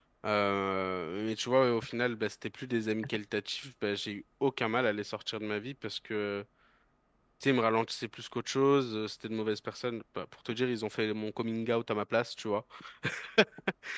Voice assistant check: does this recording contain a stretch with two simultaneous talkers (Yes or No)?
No